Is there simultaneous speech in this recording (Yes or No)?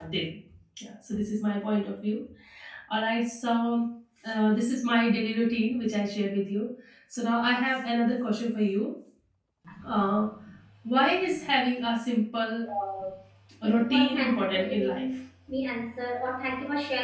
Yes